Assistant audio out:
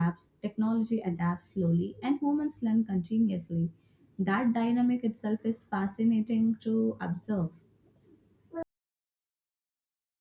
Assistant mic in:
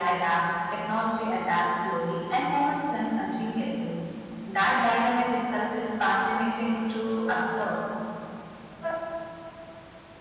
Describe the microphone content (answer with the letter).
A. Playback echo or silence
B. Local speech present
A